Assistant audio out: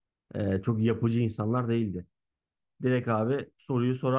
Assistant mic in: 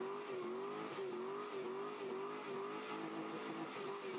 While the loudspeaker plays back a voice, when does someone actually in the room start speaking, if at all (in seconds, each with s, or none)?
none